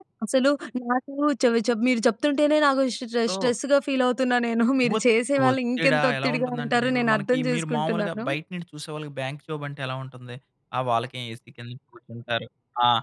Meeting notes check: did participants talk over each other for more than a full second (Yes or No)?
Yes